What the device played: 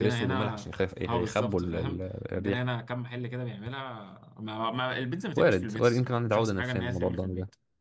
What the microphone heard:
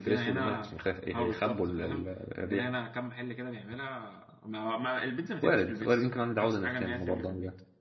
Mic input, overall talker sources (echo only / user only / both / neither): echo only